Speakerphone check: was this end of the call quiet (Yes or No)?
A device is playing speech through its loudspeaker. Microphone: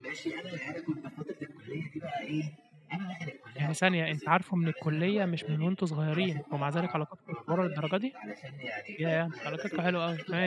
No